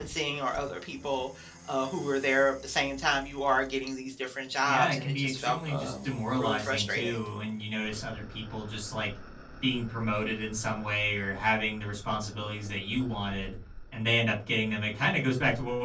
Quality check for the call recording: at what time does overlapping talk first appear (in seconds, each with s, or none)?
4.7 s